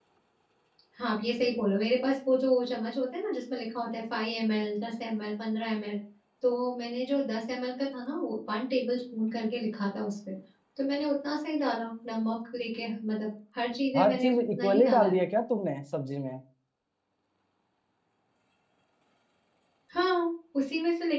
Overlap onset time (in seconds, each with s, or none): 13.9 s